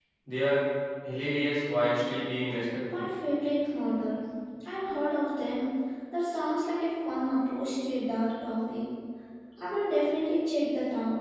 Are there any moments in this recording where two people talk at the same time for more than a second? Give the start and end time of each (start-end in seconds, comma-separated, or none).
none